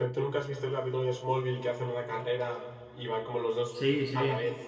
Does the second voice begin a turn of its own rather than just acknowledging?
Yes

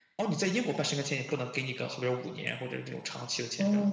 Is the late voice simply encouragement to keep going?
No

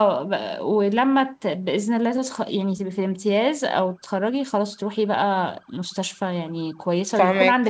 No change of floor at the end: Yes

